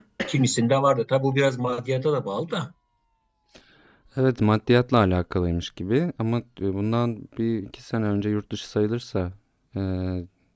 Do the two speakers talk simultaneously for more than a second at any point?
No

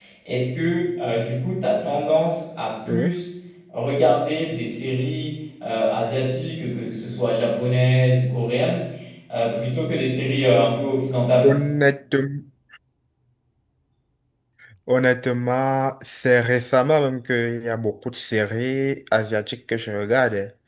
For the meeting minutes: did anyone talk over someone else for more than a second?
No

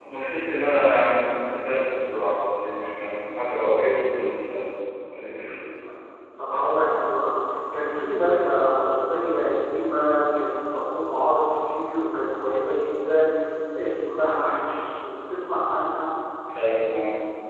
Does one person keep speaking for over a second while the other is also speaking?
No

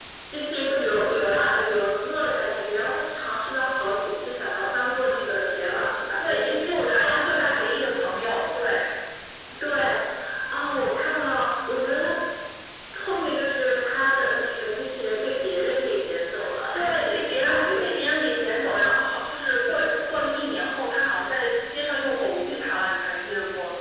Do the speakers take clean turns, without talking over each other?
No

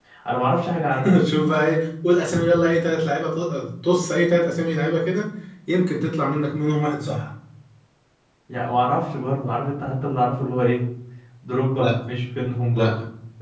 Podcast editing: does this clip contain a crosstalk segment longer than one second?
No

